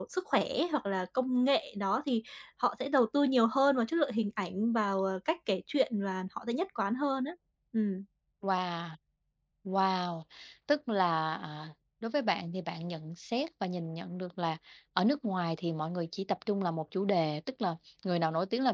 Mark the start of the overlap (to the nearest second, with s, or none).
none